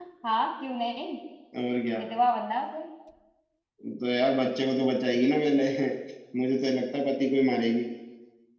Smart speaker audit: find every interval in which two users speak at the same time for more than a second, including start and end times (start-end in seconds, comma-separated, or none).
none